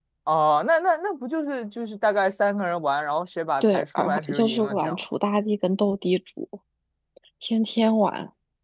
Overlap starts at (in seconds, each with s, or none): 3.6 s